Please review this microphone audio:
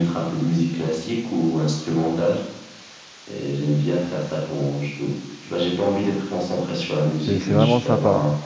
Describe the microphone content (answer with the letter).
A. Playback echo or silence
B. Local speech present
B